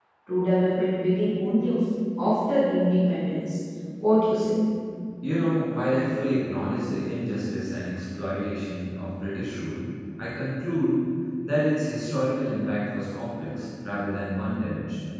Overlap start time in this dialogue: none

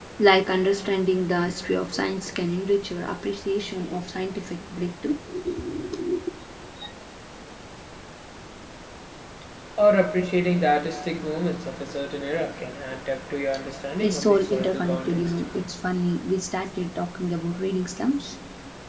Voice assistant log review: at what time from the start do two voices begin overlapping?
14.0 s

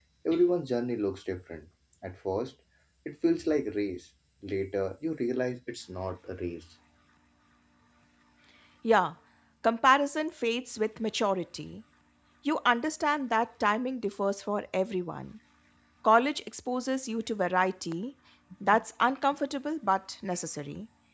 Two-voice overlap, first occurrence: none

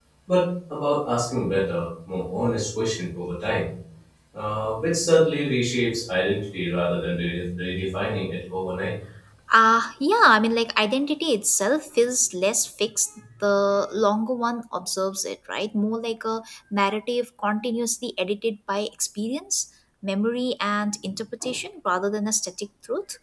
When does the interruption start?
none

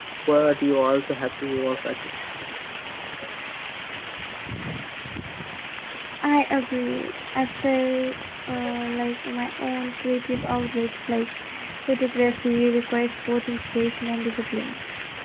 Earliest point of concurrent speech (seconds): none

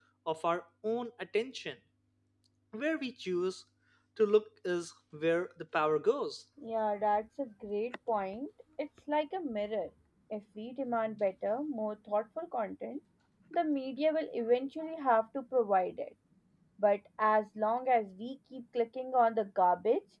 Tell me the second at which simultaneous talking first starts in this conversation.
none

